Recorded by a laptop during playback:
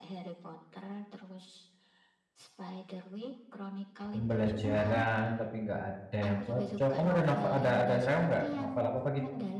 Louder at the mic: user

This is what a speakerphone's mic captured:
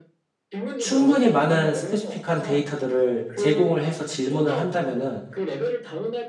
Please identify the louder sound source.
user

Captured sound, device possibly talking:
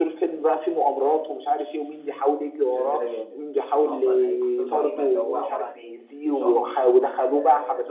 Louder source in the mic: echo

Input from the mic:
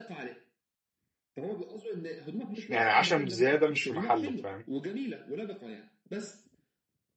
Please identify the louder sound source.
user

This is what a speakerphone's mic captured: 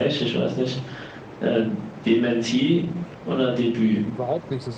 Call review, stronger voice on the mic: echo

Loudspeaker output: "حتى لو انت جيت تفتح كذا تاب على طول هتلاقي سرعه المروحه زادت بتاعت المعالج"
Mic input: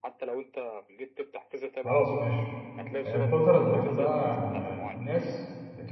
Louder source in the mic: user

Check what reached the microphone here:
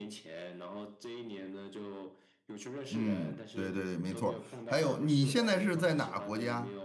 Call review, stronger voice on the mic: user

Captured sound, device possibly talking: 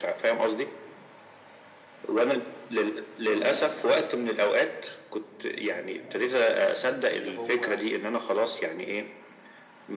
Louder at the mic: echo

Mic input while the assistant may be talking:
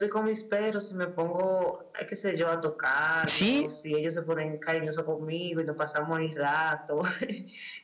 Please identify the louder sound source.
user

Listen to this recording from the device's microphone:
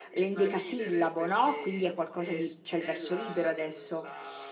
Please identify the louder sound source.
user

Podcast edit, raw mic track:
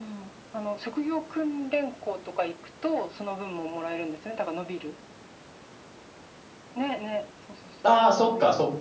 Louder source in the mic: user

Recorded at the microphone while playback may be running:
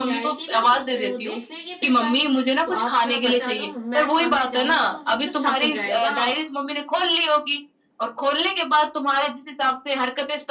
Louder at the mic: echo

